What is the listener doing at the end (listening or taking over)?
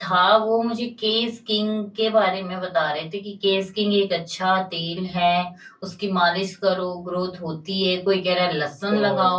taking over